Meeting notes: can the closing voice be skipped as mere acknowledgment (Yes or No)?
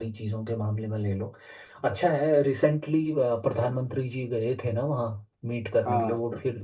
Yes